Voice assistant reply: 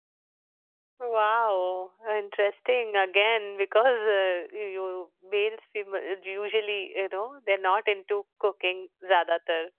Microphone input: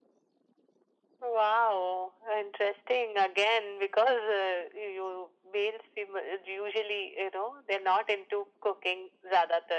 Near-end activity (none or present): none